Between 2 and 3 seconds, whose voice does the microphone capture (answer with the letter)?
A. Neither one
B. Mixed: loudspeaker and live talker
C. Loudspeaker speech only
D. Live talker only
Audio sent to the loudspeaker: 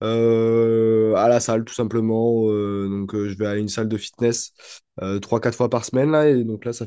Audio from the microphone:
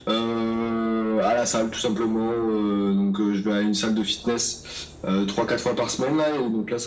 C